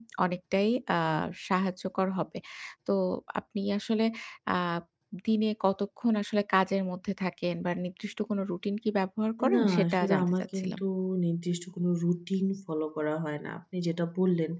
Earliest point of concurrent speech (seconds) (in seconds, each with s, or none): 9.4 s